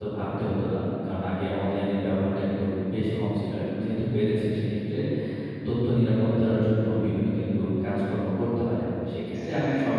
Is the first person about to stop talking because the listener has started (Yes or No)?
No